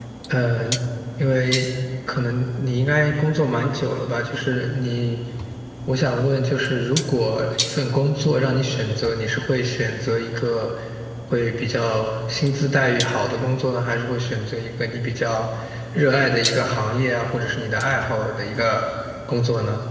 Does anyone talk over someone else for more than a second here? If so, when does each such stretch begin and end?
none

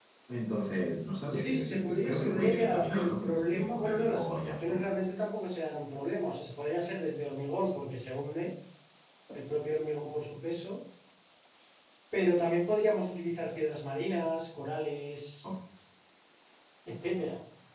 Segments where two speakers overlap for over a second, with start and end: 1.1-4.8

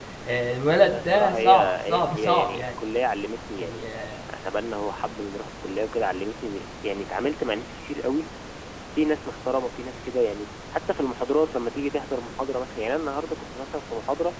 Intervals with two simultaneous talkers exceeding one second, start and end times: 0.9-2.6

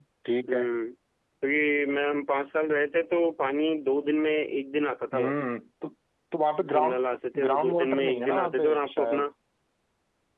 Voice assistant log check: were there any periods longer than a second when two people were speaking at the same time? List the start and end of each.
7.4-9.2

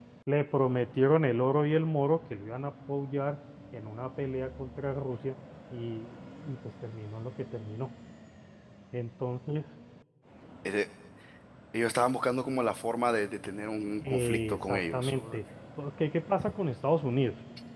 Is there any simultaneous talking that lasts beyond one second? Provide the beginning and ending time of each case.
14.1-15.4

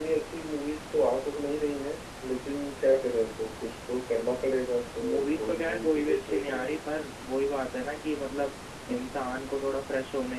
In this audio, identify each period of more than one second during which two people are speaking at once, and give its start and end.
5.0-6.8

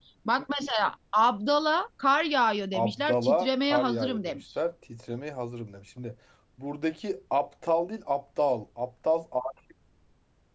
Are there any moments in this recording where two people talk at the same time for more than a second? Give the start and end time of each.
2.7-4.4

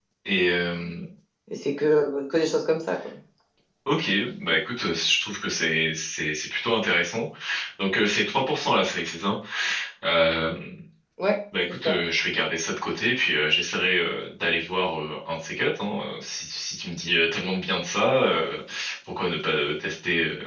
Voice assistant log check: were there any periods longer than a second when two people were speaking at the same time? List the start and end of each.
none

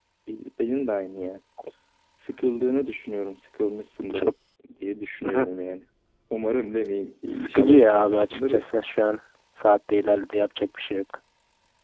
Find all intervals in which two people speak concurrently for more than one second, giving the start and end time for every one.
7.3-8.7

